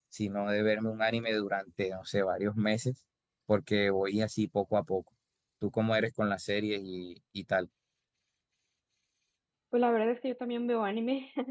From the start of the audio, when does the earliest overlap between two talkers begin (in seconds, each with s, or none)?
none